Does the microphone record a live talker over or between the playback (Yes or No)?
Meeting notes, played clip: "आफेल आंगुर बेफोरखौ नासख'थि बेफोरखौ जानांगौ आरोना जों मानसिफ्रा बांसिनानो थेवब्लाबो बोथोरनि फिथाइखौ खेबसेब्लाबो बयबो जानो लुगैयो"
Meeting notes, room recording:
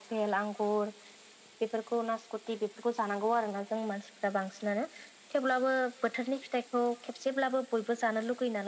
No